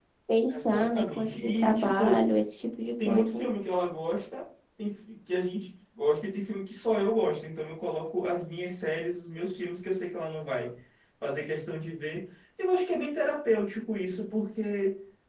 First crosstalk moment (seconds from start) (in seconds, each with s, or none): 0.5 s